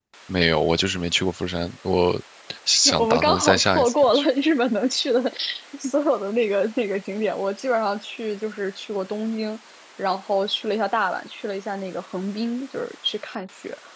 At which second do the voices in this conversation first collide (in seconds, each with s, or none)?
3.0 s